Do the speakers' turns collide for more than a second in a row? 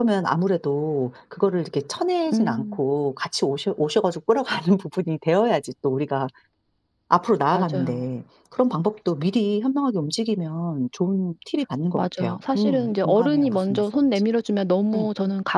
Yes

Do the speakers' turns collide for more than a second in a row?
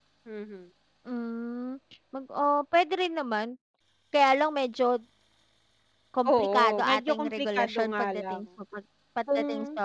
Yes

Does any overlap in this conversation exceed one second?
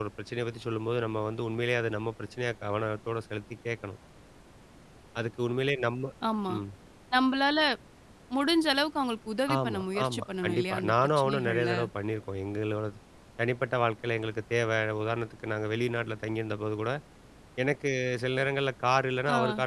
Yes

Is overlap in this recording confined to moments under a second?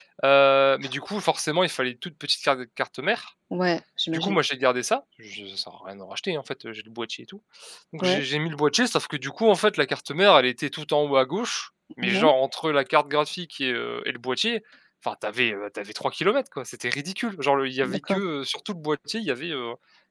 Yes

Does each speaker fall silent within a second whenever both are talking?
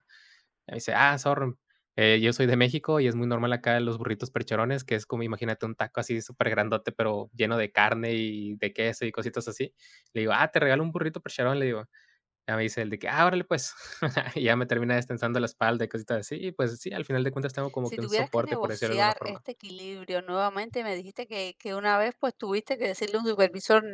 No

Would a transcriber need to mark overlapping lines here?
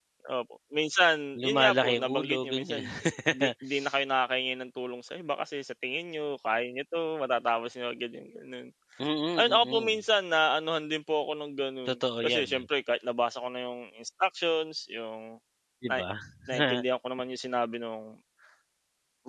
Yes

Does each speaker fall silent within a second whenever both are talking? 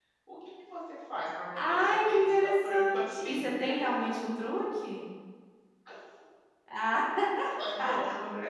No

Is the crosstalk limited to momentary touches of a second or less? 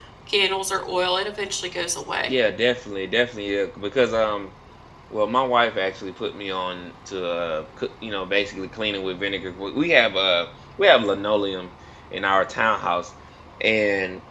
Yes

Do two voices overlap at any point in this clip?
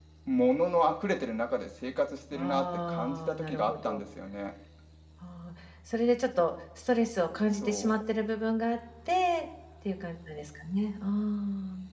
Yes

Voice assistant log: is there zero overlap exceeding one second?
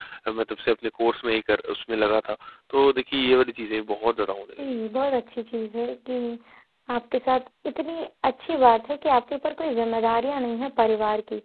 Yes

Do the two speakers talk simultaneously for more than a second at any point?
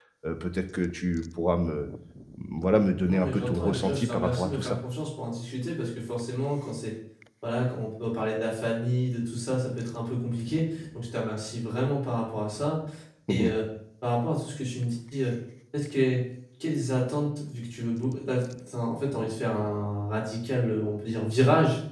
Yes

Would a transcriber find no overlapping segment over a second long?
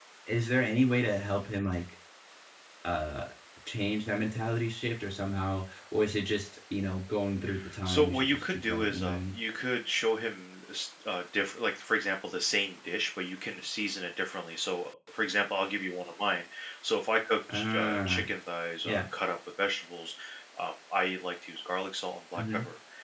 No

